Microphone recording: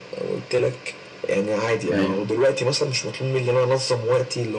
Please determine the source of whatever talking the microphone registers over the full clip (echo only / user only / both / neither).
both